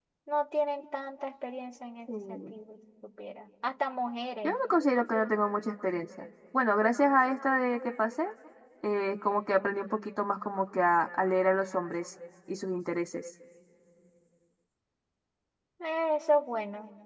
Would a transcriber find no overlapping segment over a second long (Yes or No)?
Yes